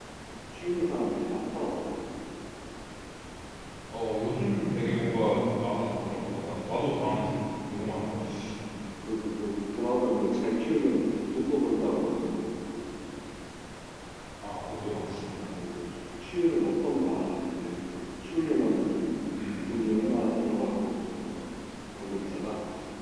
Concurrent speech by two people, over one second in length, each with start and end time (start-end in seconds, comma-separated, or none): none